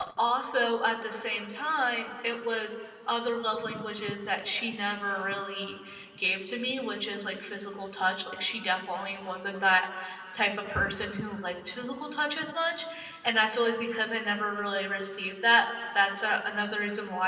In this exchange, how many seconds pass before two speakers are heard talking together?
none

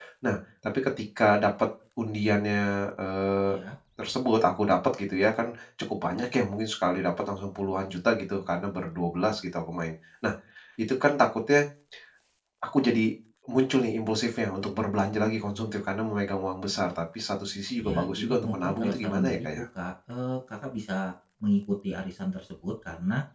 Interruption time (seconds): 18 s

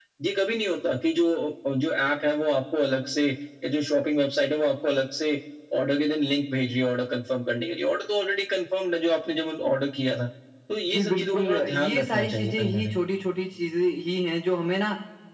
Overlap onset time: 11 s

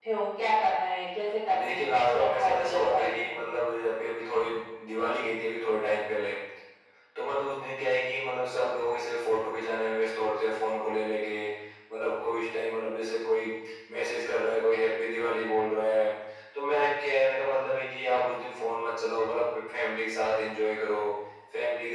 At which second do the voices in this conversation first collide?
1 s

